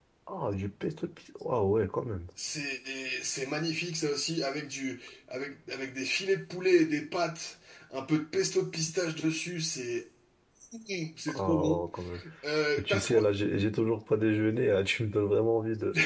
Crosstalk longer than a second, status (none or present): none